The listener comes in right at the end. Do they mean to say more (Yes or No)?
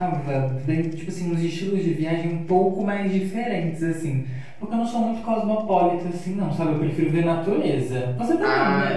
Yes